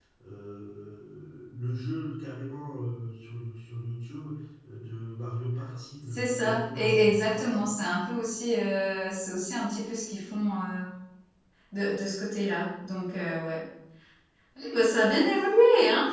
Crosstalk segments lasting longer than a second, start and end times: 6.1-7.7

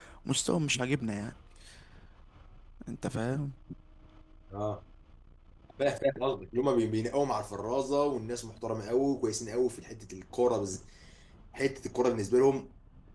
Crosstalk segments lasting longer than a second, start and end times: none

